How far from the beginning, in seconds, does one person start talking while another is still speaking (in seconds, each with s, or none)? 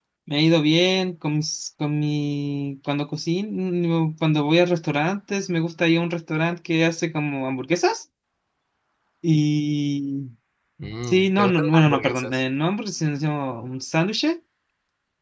11.0 s